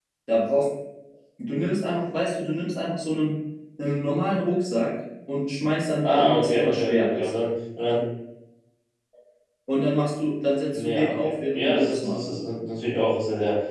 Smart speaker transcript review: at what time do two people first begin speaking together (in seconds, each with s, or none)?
6.0 s